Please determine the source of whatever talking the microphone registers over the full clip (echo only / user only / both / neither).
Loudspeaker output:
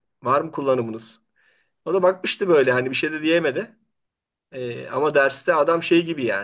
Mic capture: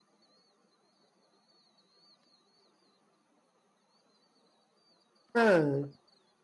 user only